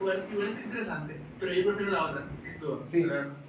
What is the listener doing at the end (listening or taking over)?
taking over